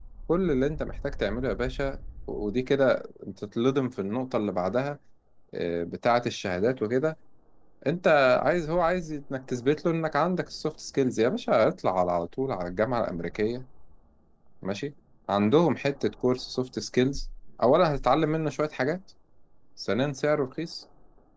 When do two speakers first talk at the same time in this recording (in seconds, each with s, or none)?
none